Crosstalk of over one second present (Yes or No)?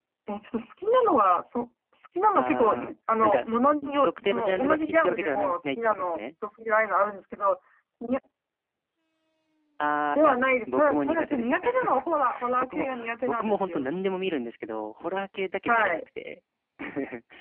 Yes